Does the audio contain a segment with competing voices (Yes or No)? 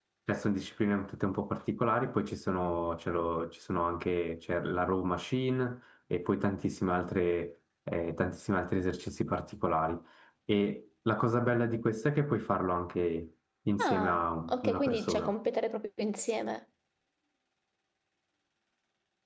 Yes